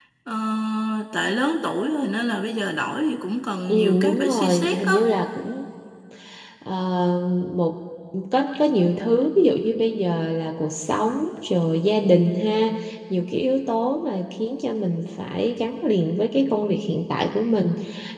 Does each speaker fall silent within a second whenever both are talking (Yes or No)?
No